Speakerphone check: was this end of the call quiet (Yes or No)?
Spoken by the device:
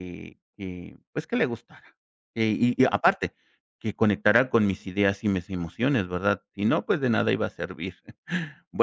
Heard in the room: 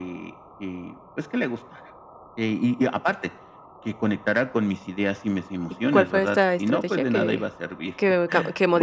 No